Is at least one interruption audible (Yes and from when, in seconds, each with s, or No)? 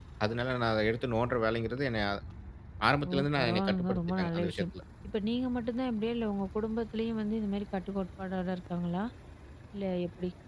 Yes, from 3.0 s